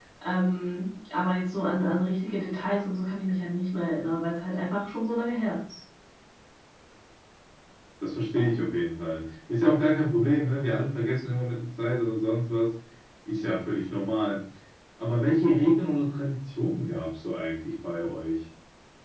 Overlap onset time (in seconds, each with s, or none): none